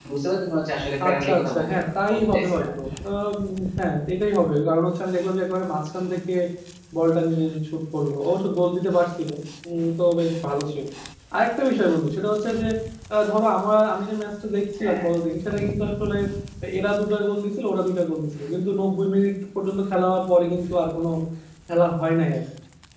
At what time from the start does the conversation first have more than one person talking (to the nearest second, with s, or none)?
1 s